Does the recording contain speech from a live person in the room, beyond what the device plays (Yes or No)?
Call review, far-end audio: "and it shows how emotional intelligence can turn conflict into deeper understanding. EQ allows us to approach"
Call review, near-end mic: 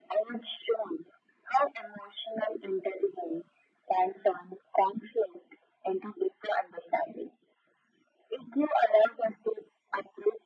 No